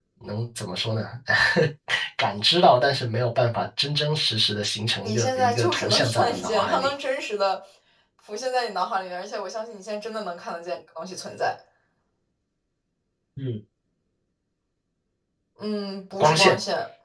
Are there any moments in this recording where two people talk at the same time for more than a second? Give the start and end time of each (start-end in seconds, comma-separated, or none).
5.0-6.9